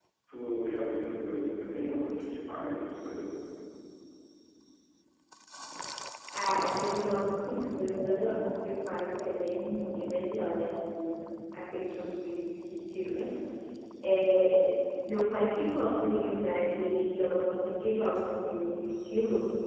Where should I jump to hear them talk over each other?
none

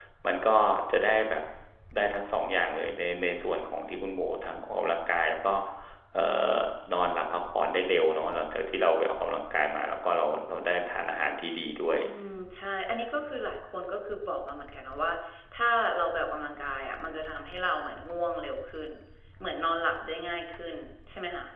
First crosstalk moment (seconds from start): none

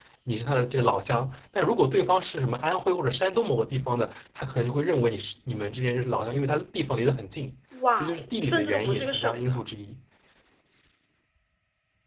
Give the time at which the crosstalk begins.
8.0 s

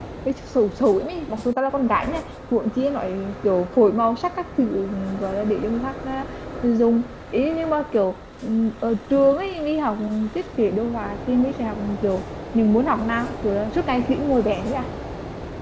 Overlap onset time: none

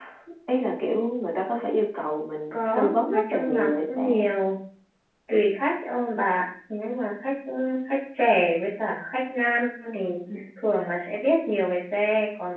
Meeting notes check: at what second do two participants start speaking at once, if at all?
2.5 s

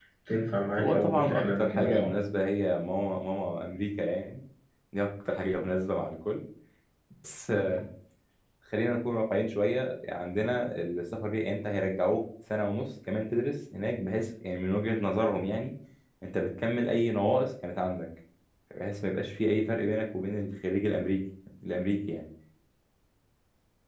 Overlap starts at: 0.8 s

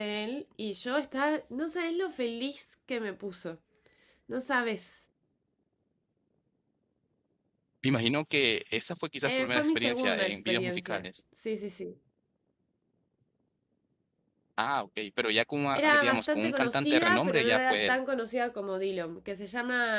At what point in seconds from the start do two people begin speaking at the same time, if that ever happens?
9.2 s

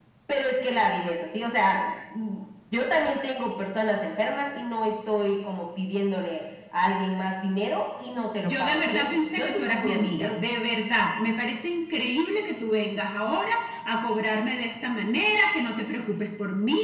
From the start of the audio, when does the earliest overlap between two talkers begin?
8.4 s

